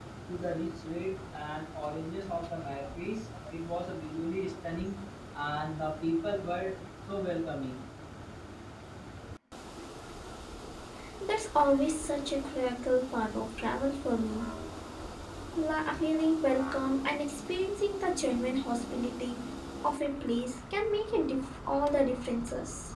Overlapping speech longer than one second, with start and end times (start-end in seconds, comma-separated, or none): none